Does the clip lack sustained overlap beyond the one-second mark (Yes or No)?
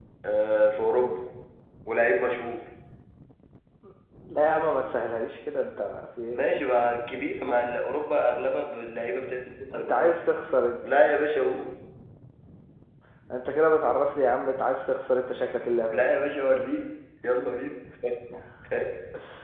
Yes